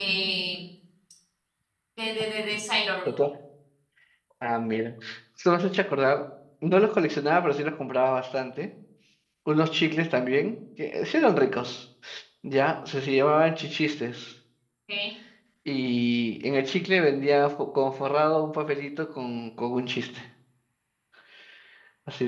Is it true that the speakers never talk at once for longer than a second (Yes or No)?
Yes